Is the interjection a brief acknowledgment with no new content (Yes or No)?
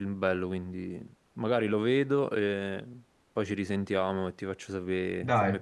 No